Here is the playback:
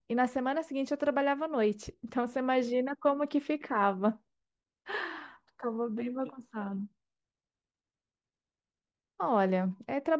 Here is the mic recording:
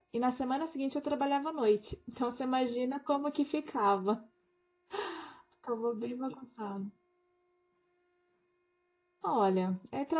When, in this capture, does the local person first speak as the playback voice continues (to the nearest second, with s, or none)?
none